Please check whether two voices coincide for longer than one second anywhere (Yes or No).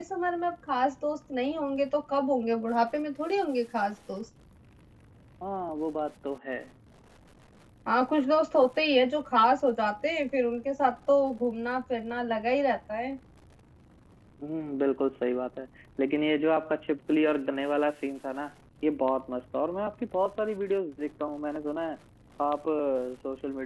No